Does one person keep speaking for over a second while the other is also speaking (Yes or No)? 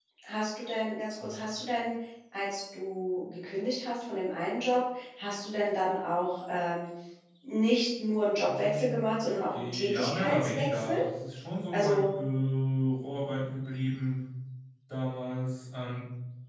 Yes